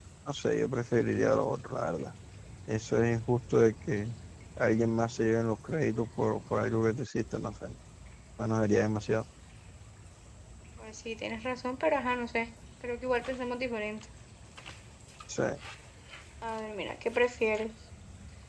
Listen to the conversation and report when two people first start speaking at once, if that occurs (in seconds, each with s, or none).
none